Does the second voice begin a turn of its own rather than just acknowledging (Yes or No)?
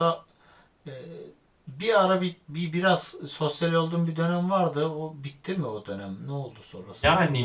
Yes